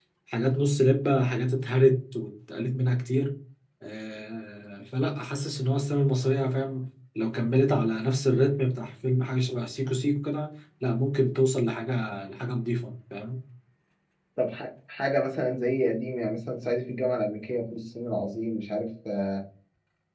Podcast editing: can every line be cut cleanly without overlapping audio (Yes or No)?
Yes